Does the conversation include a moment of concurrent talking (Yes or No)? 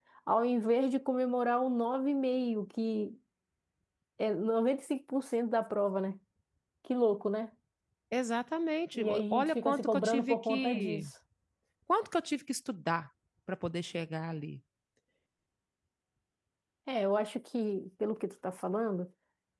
Yes